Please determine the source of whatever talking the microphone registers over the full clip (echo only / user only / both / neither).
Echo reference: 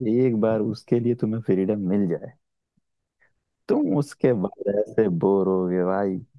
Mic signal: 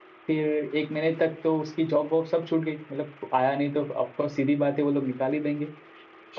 user only